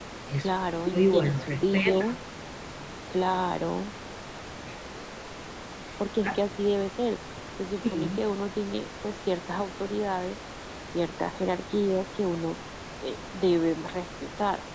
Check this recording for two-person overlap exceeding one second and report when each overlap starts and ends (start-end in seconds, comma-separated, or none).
0.9-2.2